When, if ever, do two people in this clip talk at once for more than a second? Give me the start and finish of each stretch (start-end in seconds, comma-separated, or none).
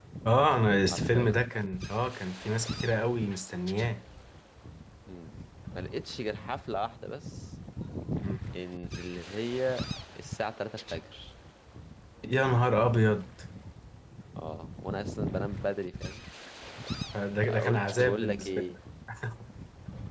17.4-18.8